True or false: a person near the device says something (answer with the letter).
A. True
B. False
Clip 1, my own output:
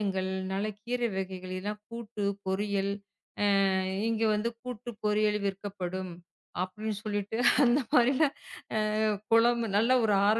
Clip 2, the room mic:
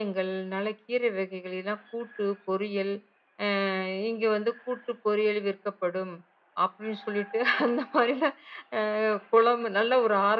B